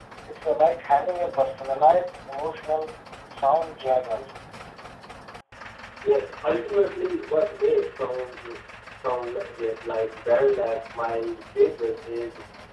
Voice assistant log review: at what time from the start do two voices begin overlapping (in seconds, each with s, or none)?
none